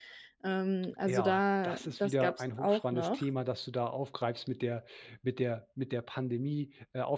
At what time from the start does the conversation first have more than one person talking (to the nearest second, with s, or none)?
1 s